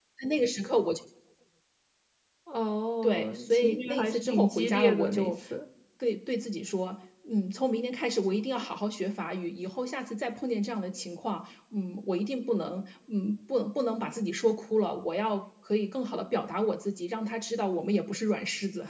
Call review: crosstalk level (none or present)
present